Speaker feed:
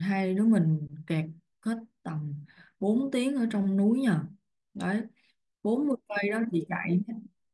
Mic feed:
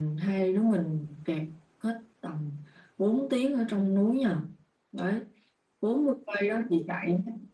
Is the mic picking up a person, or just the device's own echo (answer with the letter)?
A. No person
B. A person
A